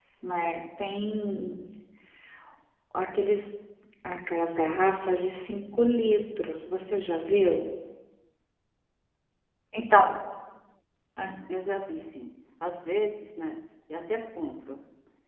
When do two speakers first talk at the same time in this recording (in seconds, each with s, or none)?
none